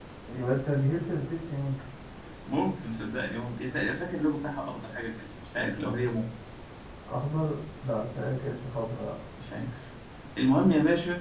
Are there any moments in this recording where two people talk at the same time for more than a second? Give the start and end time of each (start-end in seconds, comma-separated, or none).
none